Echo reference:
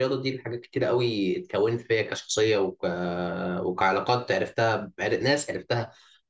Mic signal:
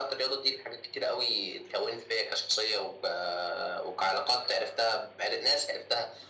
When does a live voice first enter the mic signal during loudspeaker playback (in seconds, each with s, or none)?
none